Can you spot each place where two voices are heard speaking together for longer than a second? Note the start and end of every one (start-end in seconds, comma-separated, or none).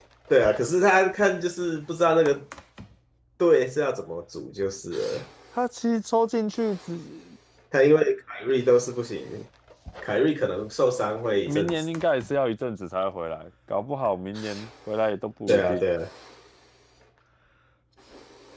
none